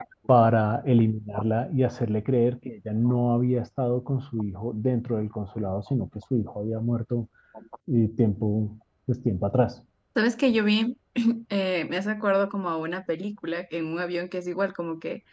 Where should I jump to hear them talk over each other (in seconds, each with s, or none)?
none